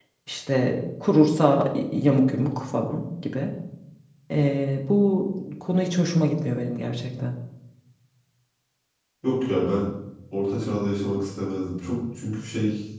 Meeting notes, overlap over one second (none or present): none